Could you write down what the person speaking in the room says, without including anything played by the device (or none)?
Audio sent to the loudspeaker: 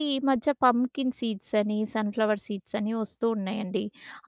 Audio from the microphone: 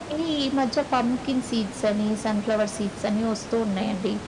none